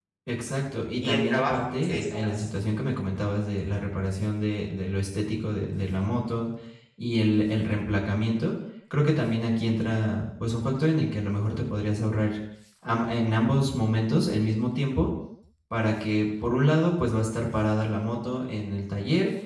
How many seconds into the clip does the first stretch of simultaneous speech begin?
1.0 s

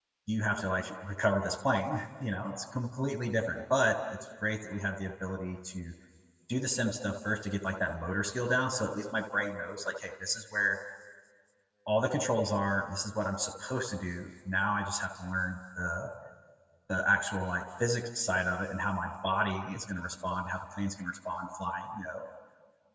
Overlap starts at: none

